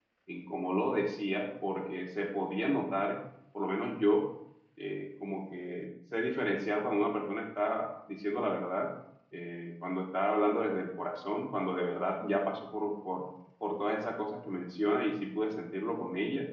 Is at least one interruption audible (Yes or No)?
No